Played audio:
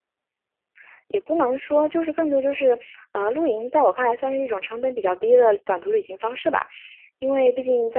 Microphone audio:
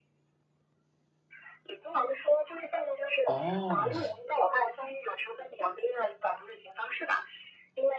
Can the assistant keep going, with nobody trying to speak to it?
No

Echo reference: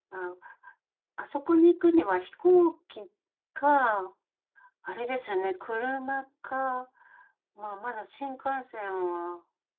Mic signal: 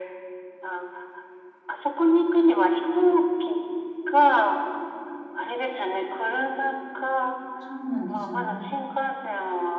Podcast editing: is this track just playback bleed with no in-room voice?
No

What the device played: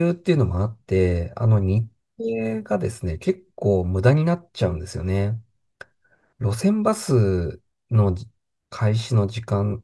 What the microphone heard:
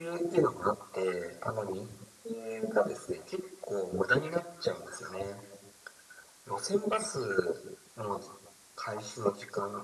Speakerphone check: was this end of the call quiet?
Yes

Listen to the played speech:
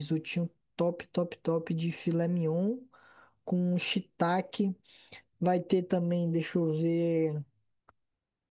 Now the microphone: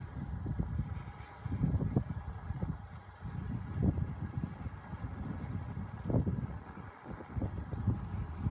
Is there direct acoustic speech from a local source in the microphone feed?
No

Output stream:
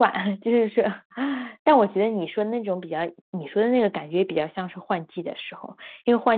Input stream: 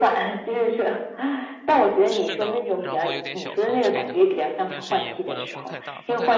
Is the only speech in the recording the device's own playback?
No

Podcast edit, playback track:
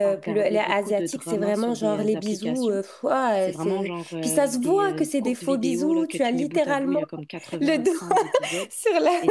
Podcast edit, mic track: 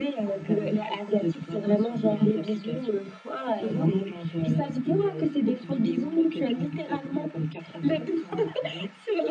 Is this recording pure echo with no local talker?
No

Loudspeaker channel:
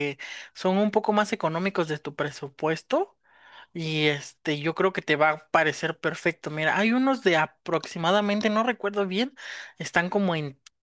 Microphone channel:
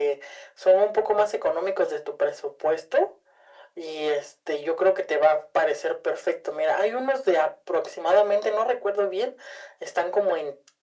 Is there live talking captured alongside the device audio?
No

